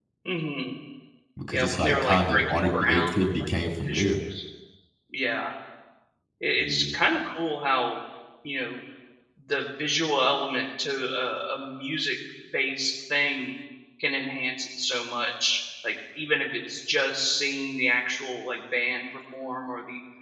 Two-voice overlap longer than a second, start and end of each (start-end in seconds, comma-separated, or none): 1.5-3.5